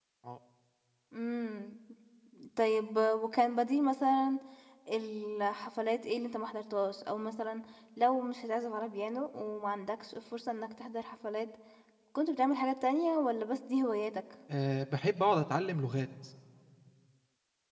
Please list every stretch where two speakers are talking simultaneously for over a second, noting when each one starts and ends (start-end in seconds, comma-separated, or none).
none